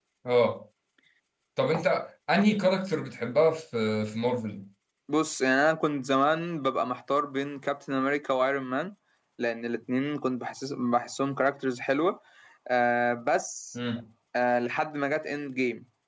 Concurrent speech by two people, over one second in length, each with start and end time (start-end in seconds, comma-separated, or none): none